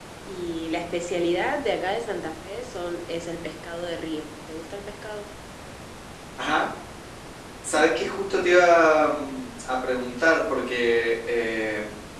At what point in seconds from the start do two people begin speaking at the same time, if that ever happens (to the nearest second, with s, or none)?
none